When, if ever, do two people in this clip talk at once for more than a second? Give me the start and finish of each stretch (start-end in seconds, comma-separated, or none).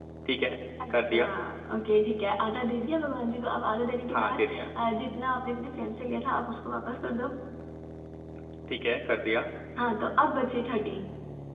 none